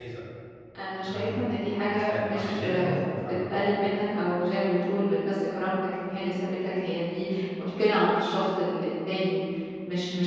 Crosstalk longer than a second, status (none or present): present